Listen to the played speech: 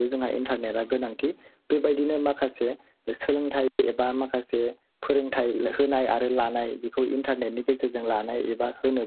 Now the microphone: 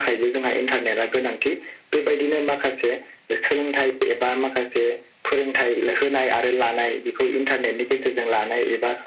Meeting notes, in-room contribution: none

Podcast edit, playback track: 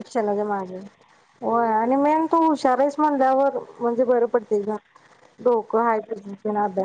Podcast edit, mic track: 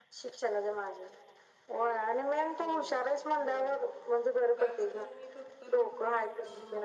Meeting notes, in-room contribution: present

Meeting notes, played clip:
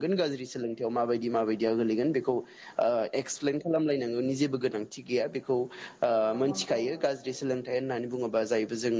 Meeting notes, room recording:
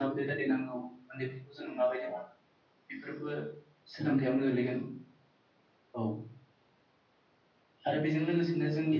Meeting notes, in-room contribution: present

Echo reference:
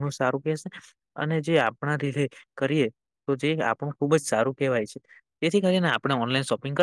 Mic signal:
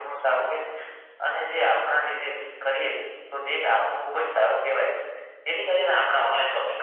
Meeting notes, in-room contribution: none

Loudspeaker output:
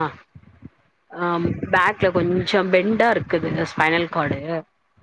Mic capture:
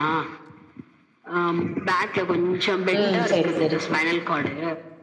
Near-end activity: present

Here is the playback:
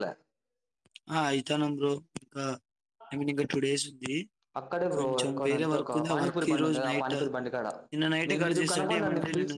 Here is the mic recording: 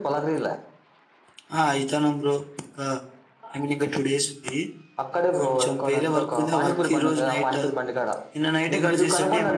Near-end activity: none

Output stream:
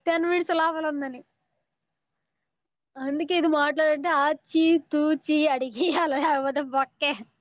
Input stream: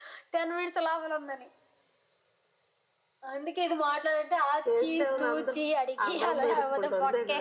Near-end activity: present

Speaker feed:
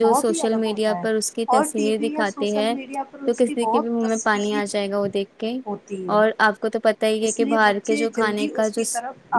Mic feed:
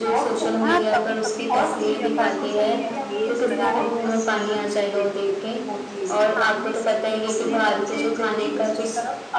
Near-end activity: present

